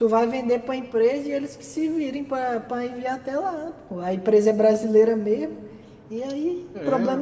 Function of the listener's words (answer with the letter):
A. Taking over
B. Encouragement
B